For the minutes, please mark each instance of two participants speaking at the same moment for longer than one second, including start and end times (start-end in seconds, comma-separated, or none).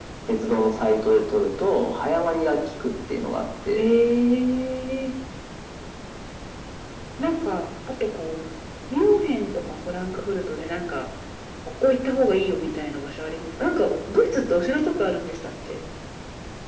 none